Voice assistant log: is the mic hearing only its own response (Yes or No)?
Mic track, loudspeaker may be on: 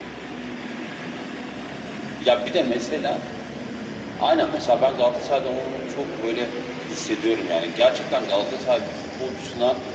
Yes